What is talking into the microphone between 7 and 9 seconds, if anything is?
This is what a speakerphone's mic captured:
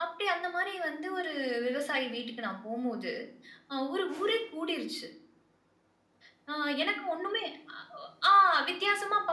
echo only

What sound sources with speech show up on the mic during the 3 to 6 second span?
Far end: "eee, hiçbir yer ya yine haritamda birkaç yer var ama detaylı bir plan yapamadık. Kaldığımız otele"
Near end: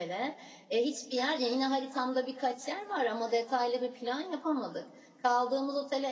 echo only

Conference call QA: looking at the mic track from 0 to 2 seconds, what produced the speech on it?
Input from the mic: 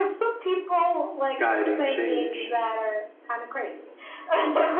both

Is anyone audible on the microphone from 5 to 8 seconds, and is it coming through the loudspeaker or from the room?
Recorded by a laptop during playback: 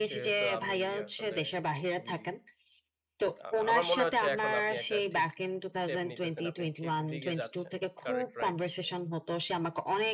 both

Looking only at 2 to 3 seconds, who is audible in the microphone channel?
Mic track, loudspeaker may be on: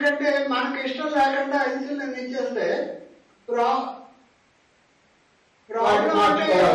echo only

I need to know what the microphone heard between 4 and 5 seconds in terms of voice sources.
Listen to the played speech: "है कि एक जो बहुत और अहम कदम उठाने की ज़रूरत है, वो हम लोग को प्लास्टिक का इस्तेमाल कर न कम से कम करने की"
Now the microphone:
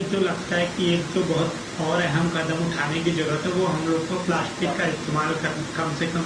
both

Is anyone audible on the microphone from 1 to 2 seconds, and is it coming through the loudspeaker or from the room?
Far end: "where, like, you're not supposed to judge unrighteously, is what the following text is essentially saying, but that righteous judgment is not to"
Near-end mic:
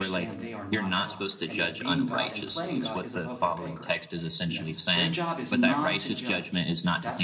both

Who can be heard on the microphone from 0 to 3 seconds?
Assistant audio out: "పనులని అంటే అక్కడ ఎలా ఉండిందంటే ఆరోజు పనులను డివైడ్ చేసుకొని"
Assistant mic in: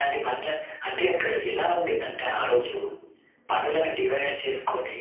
echo only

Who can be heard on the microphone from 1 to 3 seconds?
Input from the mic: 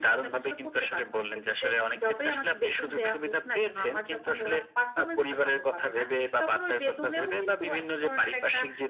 echo only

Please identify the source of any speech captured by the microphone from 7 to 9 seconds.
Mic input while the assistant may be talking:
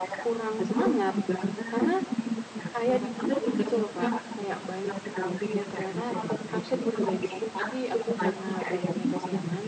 both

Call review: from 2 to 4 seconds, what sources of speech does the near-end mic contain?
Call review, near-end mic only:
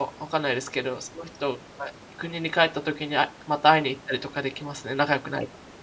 user only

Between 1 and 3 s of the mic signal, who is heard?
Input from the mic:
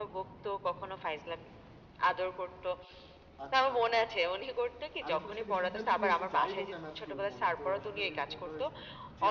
echo only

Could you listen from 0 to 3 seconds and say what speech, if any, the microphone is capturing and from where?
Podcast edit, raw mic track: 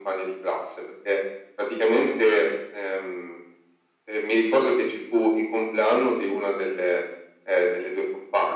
echo only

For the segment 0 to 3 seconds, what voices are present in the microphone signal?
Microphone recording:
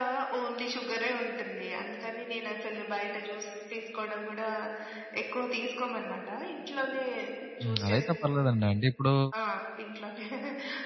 echo only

